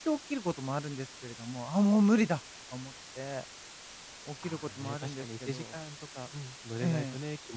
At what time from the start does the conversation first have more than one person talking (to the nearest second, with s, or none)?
4 s